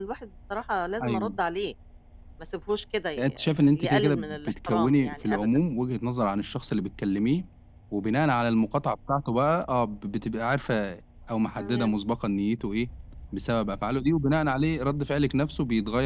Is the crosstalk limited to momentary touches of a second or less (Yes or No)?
No